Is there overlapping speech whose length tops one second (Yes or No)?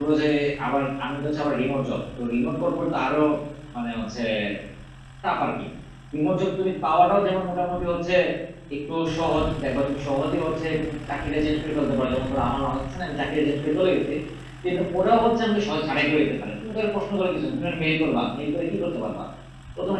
No